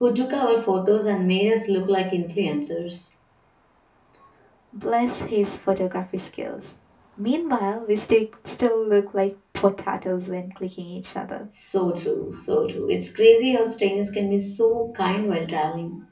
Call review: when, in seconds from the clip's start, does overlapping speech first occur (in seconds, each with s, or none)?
none